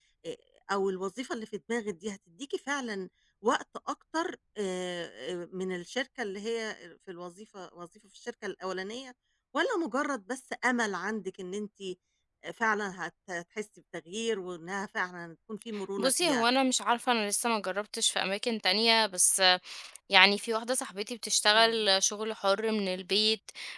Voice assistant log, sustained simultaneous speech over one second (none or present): none